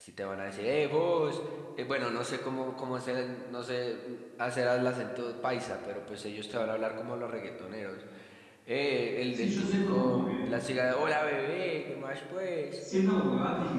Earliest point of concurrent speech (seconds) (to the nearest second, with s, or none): 9 s